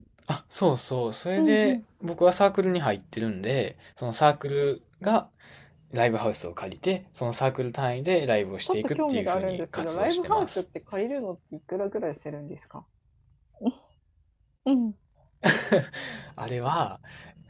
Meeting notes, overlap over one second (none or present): present